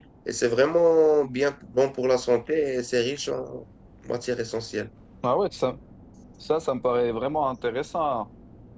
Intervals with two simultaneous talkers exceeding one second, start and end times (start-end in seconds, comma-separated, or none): none